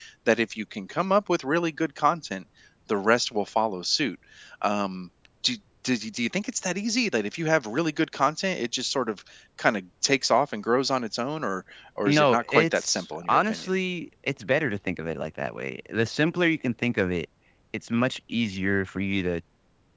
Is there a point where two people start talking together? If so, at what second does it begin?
12.1 s

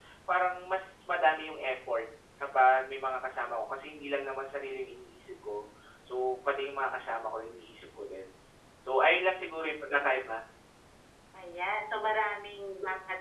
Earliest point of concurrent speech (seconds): none

